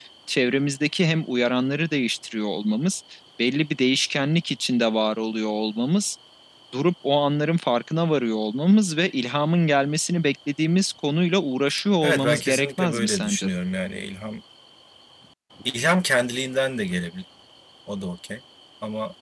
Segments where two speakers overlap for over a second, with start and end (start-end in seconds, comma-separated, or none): 12.0-13.5